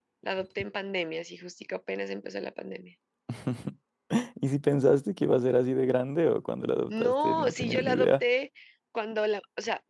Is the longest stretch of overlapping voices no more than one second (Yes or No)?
No